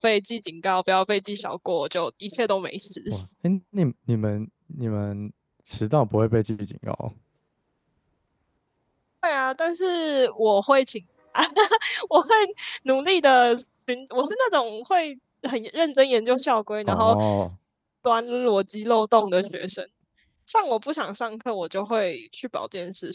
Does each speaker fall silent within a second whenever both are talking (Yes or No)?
Yes